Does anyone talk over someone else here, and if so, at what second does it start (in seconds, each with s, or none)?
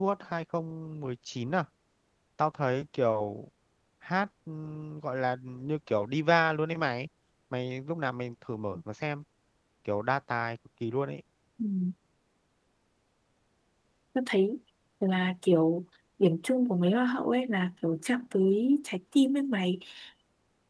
none